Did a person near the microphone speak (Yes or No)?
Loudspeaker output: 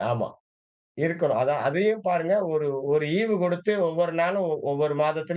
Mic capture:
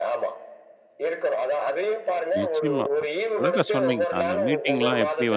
Yes